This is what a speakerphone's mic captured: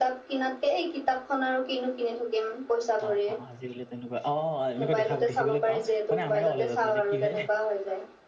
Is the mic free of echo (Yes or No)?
No